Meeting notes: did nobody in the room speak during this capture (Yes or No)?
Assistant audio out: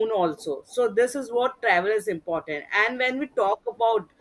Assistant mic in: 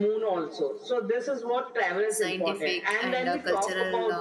No